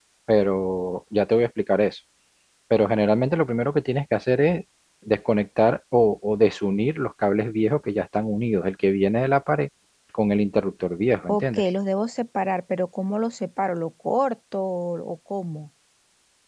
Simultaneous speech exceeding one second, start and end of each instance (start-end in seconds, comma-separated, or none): none